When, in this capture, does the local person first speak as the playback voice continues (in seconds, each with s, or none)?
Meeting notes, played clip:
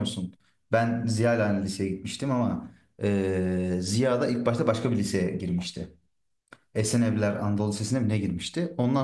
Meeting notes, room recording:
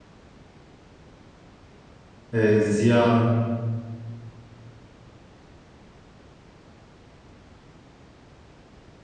2.3 s